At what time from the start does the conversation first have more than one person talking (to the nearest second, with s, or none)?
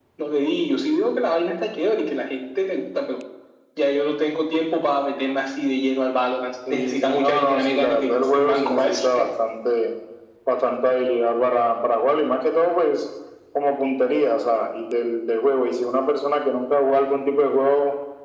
7 s